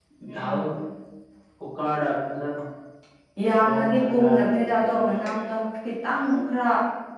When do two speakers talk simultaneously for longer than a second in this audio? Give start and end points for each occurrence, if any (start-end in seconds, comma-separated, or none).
3.6-4.9